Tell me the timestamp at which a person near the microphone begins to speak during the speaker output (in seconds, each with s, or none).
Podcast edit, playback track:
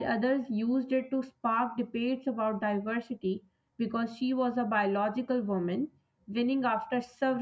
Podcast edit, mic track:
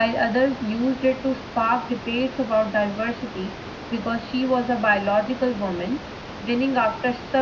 none